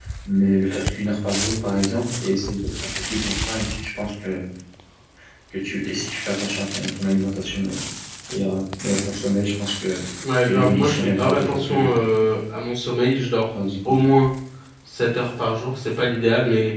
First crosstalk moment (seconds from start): 10 s

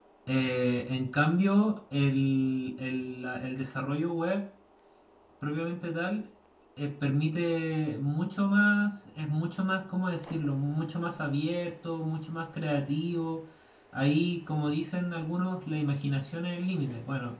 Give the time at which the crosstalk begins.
none

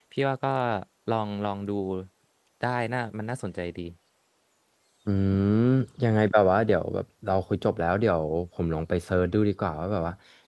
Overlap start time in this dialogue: none

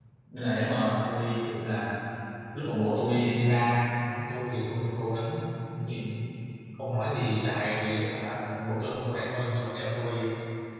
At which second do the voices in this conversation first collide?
none

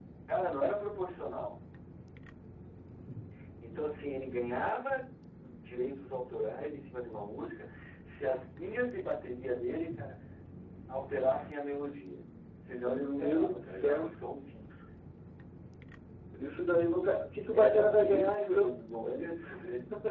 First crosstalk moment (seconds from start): 13 s

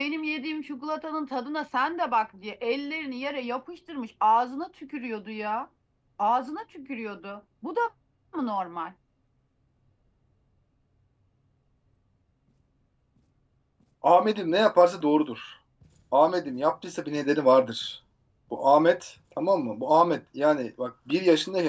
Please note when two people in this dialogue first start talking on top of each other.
none

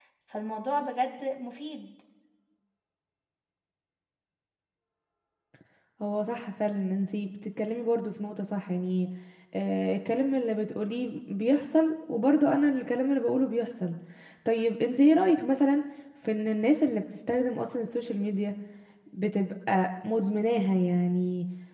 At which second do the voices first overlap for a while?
none

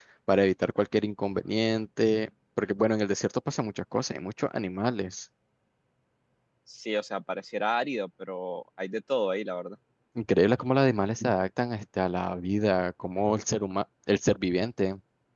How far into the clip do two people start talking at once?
none

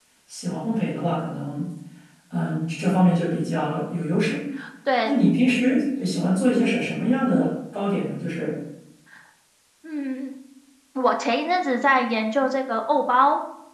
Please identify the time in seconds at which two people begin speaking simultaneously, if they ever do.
none

